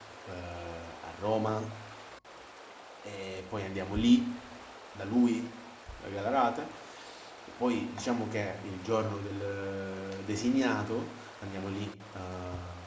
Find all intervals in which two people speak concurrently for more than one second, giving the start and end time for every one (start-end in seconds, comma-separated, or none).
none